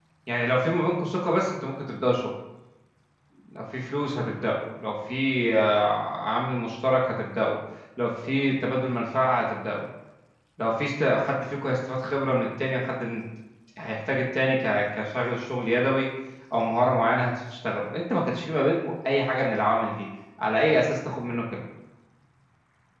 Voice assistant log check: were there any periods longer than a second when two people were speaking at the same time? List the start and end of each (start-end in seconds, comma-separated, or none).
none